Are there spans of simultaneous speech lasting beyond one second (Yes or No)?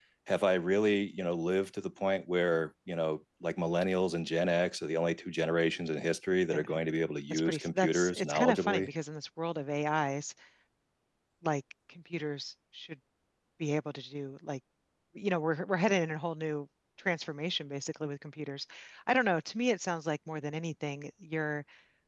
Yes